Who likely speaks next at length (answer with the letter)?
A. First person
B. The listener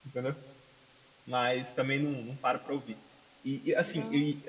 A